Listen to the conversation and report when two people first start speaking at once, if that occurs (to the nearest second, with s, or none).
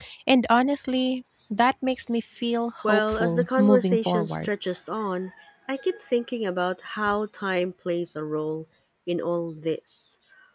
3 s